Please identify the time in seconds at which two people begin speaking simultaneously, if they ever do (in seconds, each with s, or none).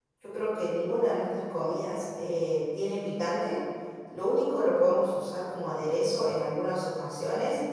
none